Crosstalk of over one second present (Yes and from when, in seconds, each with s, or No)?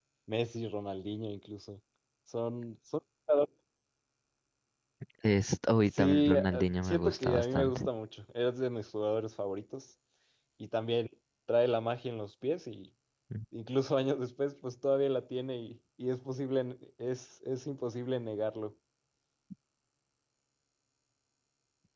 Yes, from 5.9 s